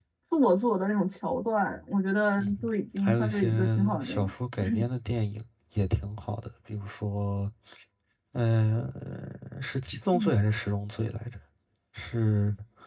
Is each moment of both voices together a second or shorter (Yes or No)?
No